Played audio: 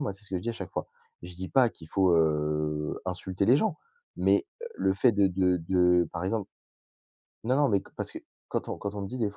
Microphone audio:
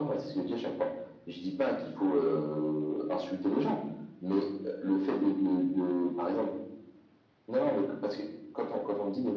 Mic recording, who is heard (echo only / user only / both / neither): echo only